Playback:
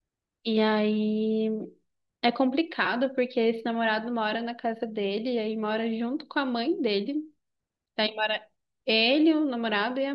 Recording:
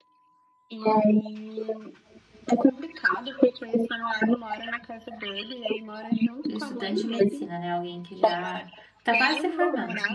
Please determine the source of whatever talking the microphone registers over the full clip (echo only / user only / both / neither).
both